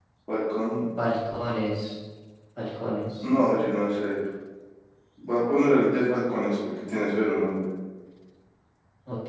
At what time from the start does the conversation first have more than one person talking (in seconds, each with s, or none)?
none